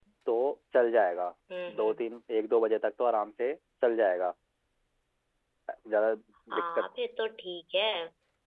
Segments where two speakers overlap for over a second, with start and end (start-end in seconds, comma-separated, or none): none